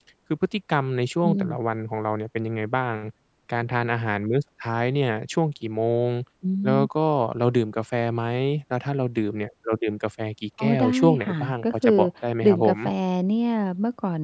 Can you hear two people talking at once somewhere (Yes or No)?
Yes